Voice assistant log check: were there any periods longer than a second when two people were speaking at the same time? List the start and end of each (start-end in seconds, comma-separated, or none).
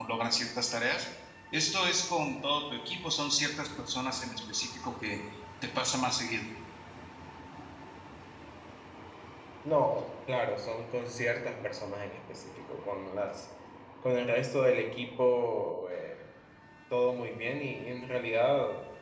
none